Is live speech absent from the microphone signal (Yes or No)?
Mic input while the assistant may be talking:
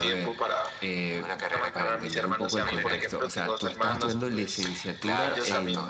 No